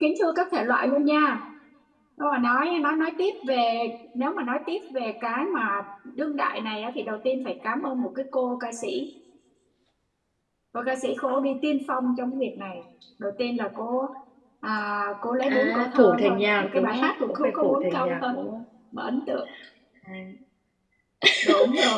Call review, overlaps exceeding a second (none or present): present